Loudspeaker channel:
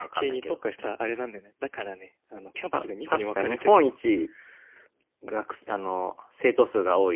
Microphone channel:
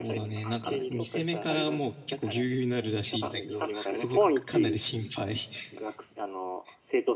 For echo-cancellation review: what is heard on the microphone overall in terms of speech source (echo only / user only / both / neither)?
both